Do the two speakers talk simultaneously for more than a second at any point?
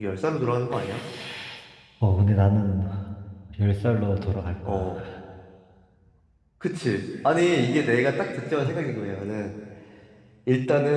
No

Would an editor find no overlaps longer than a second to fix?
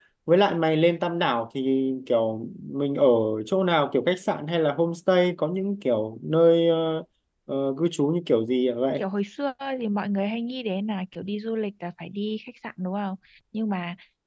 Yes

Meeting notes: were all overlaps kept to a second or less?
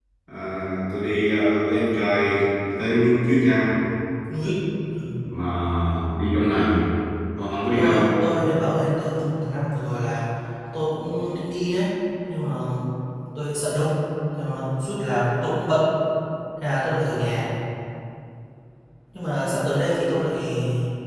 Yes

